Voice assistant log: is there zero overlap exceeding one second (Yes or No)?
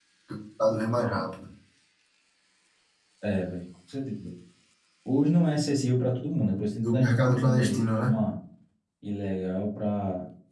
No